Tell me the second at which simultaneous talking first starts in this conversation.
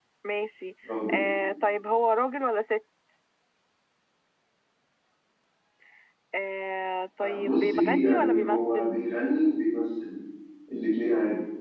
7.2 s

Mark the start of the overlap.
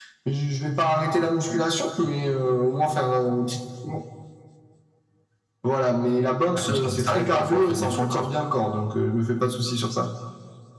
6.7 s

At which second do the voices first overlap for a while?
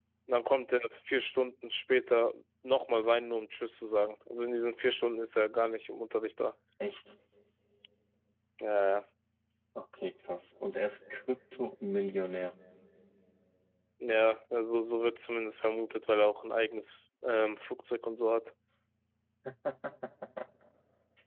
none

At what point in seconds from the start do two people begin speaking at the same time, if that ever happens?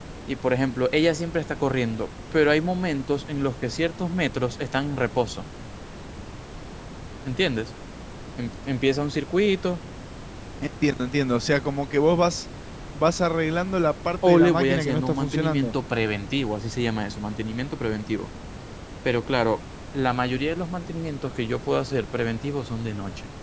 14.2 s

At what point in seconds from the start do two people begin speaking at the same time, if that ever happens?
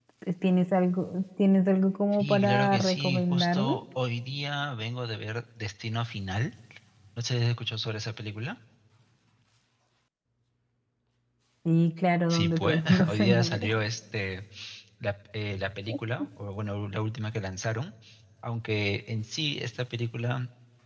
2.1 s

